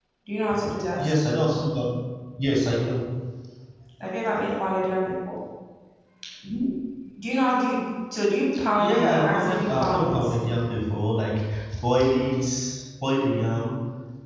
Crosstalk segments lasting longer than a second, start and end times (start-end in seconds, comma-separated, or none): 8.9-10.2